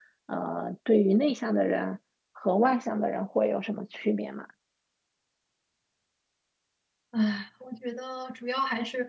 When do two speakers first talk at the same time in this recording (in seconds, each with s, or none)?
none